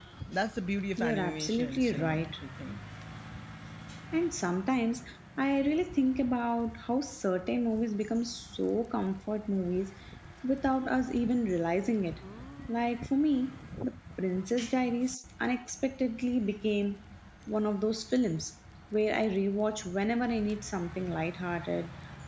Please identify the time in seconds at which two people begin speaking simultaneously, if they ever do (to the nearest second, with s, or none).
1 s